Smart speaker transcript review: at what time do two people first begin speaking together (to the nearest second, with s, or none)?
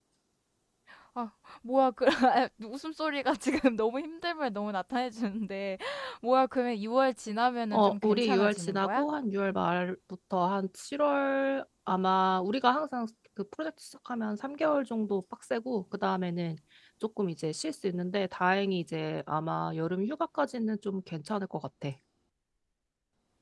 8 s